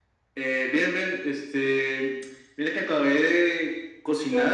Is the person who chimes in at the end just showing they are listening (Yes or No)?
Yes